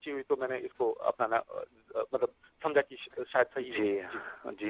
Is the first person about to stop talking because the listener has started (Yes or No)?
Yes